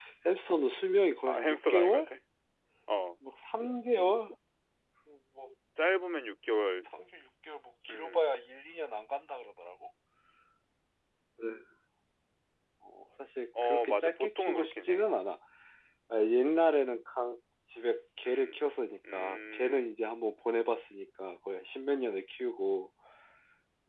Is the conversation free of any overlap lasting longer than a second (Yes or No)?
No